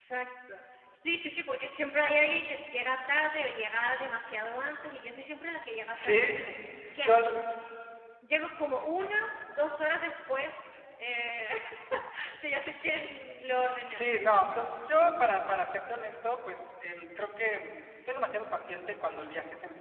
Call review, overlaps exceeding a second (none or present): none